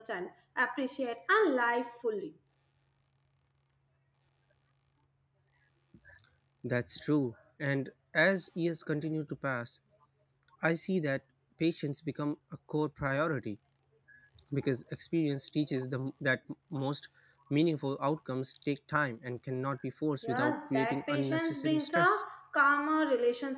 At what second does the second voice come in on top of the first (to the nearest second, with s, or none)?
20 s